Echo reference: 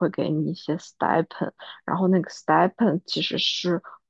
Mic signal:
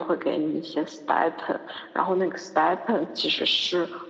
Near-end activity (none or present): none